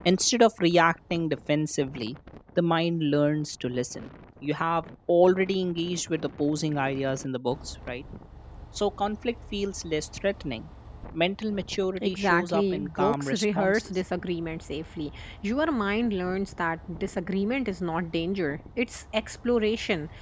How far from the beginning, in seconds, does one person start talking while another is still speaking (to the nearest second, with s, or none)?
12 s